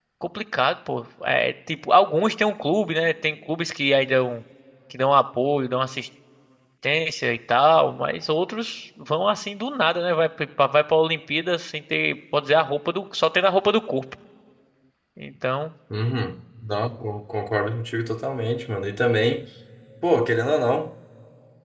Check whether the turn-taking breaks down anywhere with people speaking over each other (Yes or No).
No